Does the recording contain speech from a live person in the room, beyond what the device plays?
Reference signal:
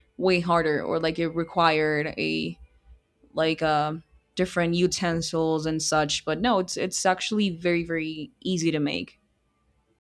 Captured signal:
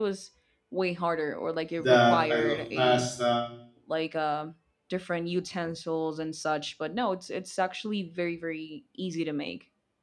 Yes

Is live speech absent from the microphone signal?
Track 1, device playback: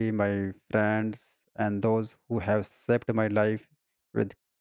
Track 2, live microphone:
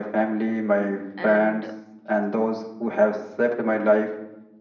No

